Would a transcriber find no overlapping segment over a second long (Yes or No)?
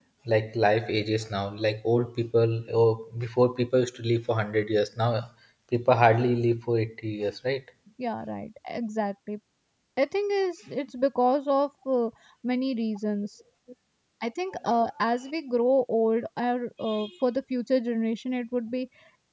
Yes